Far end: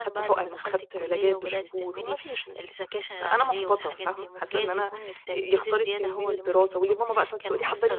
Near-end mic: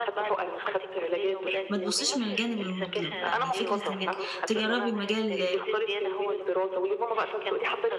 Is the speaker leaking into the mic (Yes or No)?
Yes